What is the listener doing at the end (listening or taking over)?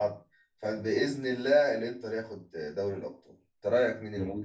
taking over